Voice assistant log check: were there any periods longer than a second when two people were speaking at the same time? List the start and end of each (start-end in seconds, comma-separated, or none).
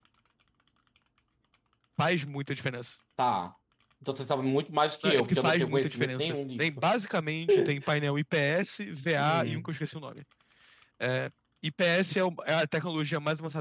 5.0-6.8